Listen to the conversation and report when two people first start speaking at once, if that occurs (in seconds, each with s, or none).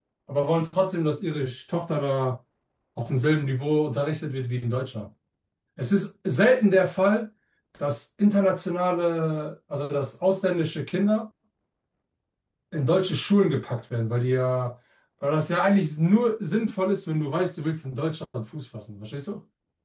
none